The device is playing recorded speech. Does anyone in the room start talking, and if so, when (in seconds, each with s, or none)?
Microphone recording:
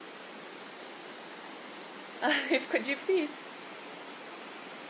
2.2 s